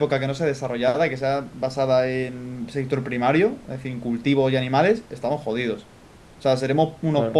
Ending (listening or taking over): listening